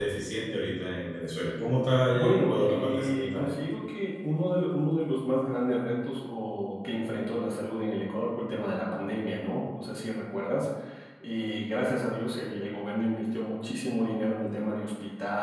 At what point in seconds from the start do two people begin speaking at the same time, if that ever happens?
2 s

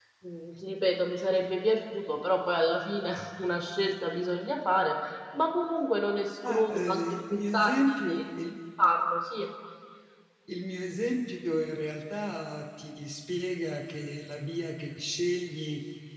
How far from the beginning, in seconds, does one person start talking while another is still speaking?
6 s

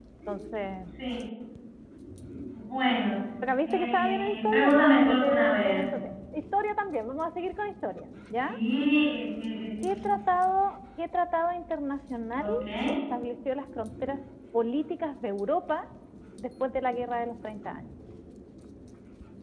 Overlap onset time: 4 s

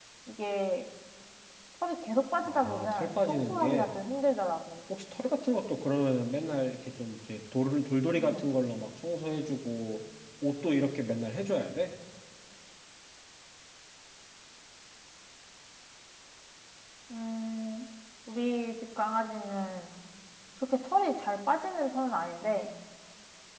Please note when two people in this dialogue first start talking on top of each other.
2 s

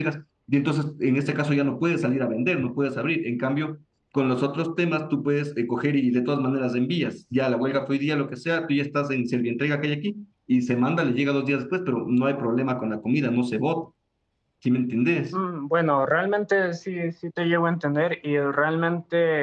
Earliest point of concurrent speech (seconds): none

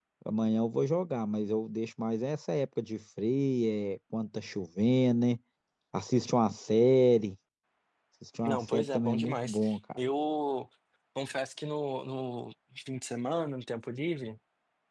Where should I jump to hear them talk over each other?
8 s

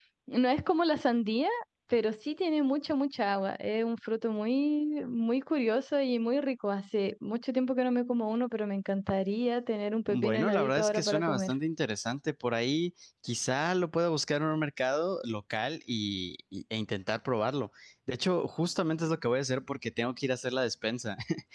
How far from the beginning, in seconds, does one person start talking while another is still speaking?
10 s

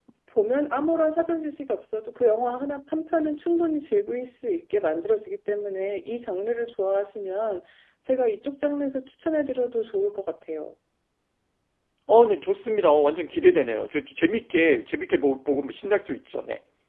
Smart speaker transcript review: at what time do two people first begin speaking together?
none

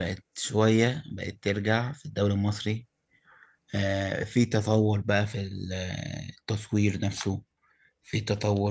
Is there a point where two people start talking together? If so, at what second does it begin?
none

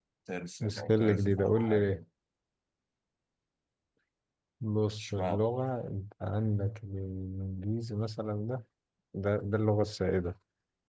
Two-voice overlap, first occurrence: 1 s

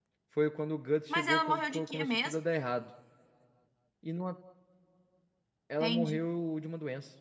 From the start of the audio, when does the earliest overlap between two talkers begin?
1 s

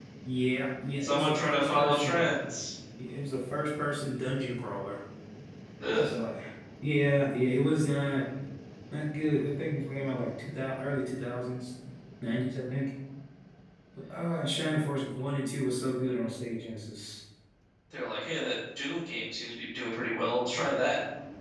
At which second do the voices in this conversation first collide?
1 s

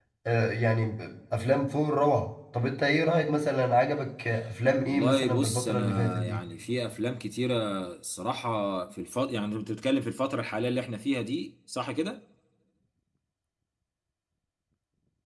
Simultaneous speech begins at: 5 s

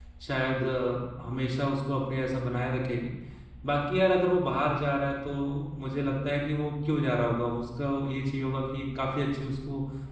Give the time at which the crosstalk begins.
none

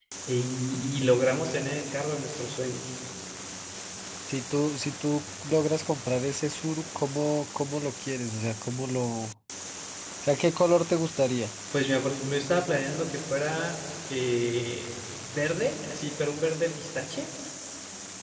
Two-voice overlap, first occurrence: none

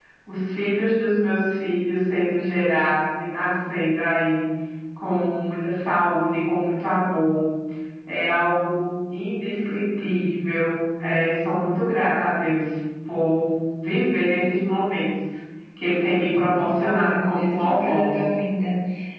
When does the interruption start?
17 s

